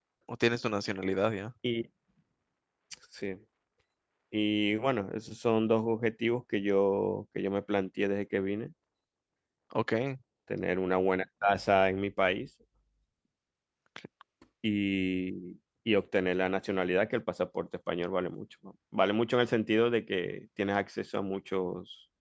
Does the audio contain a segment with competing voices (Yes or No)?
No